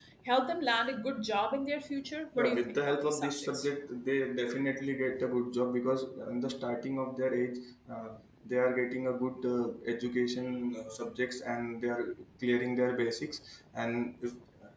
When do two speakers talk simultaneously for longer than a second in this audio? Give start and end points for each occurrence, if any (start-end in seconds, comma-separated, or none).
2.4-3.7